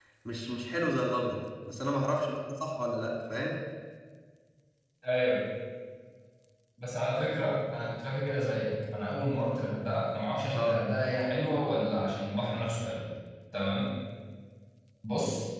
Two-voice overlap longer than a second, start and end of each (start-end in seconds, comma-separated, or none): none